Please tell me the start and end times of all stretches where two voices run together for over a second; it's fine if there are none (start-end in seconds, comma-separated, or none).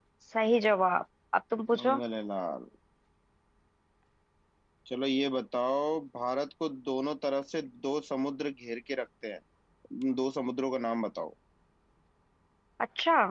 none